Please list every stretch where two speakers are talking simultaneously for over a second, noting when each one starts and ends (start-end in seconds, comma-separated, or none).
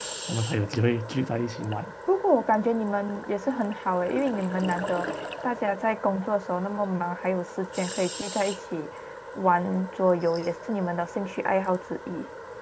none